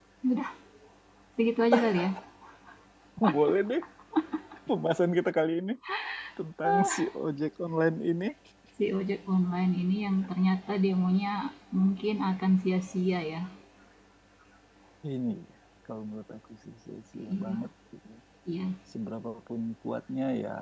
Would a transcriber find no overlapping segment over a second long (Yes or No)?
Yes